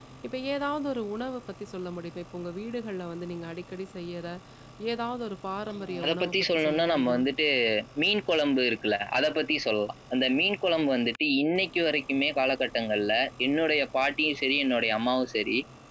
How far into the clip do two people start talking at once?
6 s

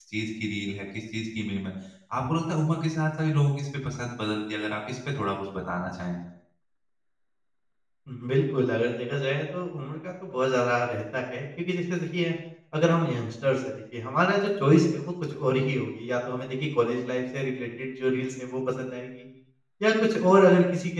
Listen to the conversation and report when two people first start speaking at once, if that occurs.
none

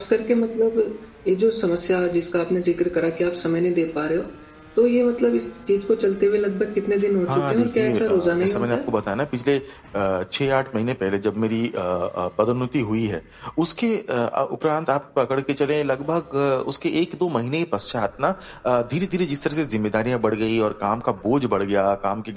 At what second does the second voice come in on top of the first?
7 s

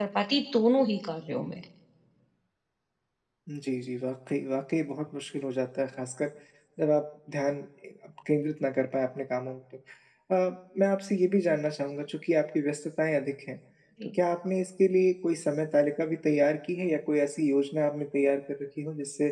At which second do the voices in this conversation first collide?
none

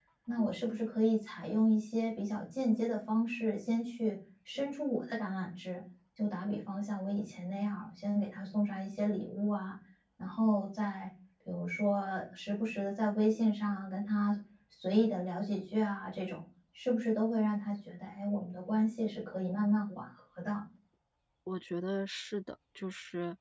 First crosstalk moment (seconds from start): none

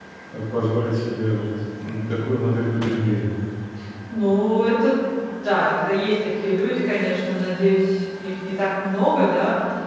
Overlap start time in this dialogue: none

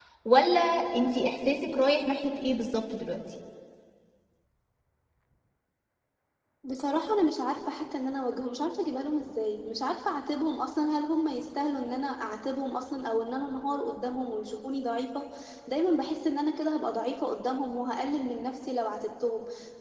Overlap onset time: none

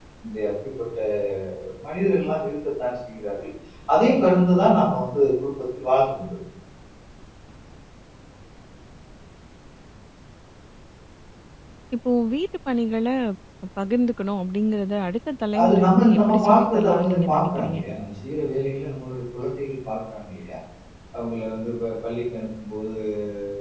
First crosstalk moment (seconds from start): 16 s

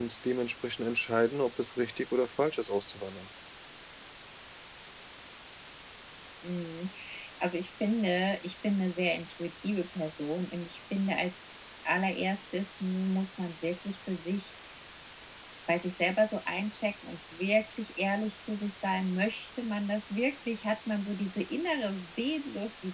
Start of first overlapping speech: none

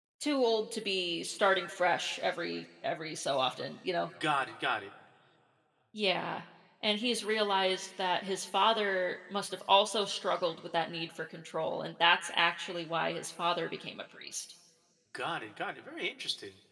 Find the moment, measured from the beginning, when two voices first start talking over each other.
none

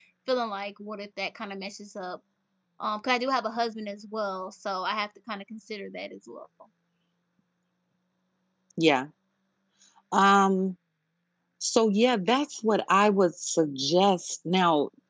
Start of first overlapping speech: none

